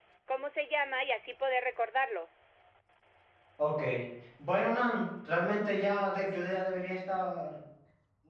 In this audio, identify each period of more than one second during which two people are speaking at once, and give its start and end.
none

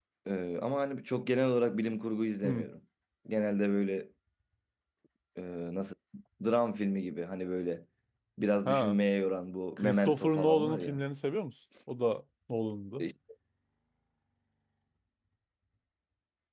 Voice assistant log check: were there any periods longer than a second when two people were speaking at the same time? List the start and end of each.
9.8-11.0

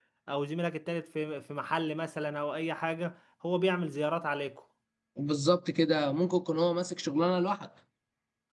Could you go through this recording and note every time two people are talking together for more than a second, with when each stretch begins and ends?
none

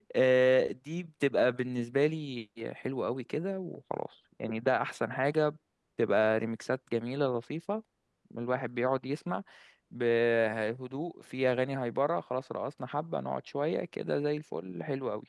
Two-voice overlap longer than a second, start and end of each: none

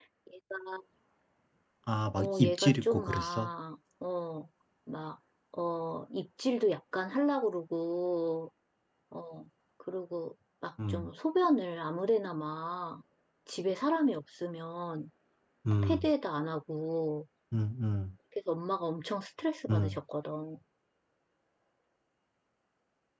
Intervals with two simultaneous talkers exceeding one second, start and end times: 2.2-3.5

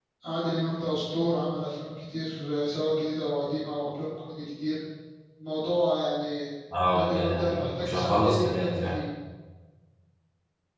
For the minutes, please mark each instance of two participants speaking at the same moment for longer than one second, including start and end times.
6.9-9.0

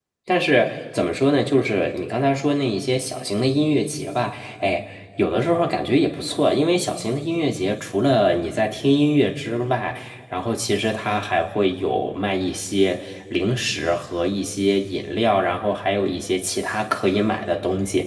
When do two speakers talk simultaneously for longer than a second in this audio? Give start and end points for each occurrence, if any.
none

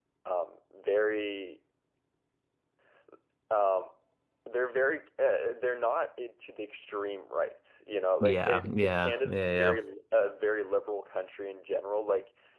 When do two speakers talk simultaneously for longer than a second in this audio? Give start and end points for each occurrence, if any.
8.2-9.8

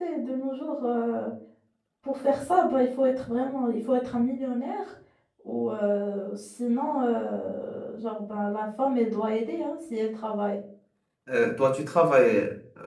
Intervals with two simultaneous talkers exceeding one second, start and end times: none

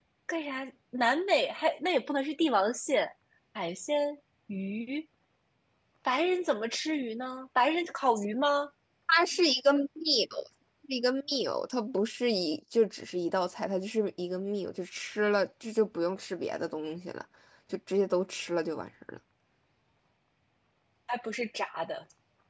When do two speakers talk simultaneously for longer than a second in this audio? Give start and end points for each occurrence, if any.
none

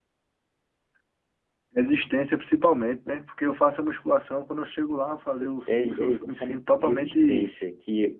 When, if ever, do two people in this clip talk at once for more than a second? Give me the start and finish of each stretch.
5.7-7.5

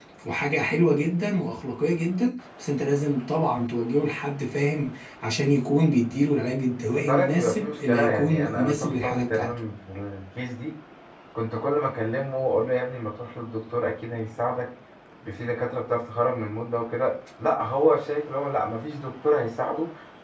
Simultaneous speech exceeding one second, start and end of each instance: 6.8-9.6

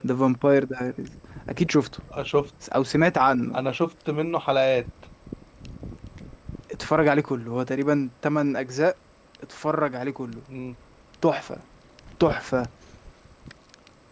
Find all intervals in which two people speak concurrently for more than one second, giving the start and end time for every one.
none

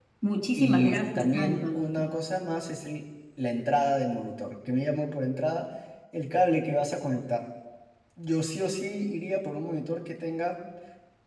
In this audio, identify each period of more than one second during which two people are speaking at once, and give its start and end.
0.6-2.1

